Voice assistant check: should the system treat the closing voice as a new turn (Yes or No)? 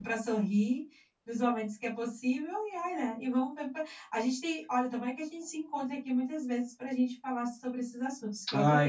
Yes